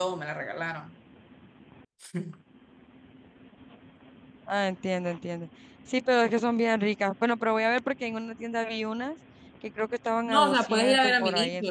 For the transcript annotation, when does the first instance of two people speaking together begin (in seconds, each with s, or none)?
10.3 s